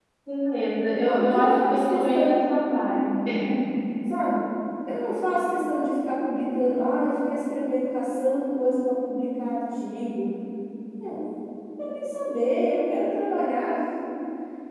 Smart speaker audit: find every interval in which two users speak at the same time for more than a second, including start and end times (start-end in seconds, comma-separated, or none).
0.9-2.4